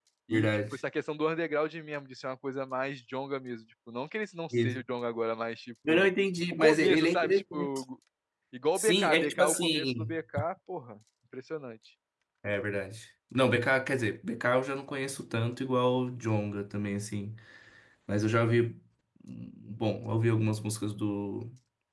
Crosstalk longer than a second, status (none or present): present